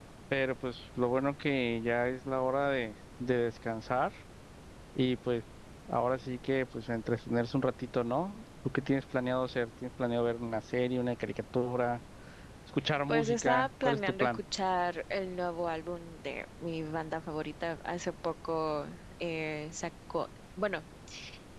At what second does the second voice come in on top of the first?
13.1 s

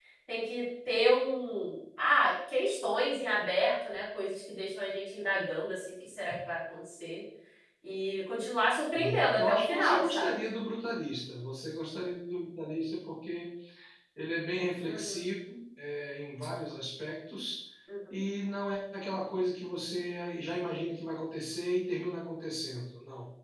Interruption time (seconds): 8.9 s

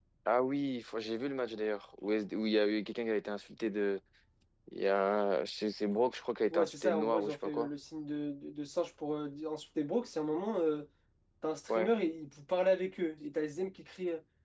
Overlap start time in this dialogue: 6.5 s

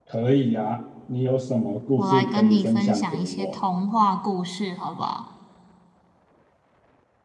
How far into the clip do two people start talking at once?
2.0 s

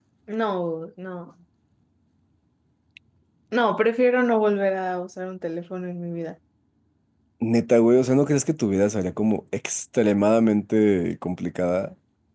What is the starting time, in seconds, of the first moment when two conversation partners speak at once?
none

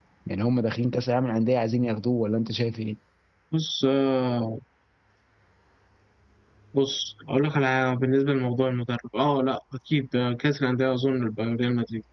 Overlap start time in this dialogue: none

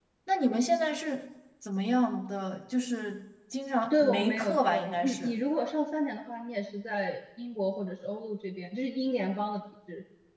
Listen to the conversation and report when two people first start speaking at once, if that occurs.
3.9 s

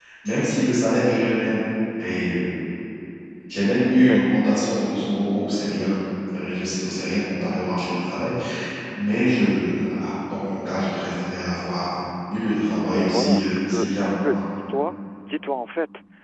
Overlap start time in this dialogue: 12.9 s

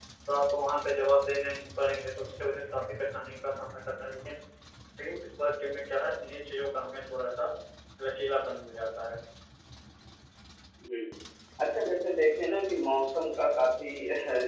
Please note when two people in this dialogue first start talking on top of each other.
none

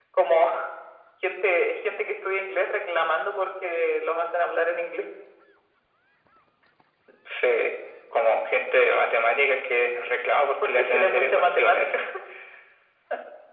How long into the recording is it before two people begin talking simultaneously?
10.6 s

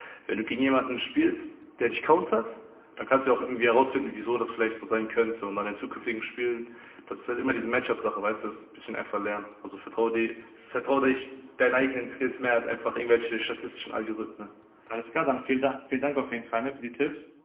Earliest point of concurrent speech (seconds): none

